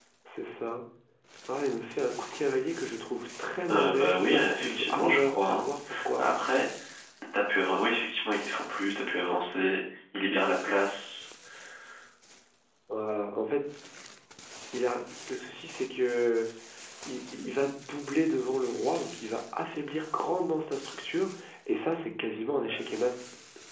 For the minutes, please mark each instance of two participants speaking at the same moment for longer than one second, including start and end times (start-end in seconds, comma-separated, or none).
3.7-5.6